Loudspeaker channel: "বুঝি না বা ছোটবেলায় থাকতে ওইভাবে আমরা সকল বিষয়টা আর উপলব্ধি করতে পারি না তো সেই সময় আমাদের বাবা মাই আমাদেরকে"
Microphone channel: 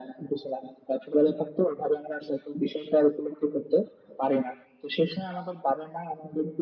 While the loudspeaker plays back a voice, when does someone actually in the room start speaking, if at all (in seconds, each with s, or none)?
none